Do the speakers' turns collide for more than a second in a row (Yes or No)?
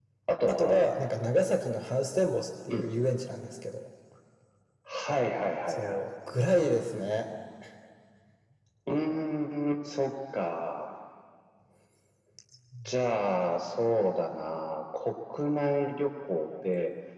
No